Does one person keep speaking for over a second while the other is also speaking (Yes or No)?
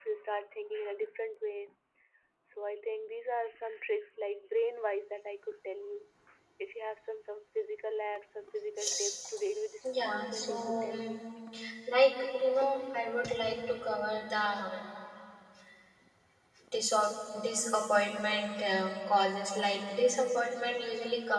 Yes